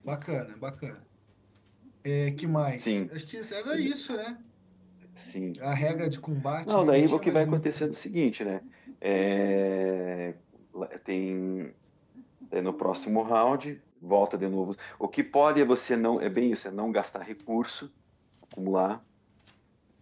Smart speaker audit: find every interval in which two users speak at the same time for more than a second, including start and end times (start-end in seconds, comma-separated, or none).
6.6-7.9